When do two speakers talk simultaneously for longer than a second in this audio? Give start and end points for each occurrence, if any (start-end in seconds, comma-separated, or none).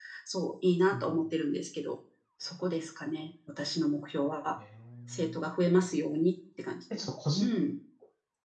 none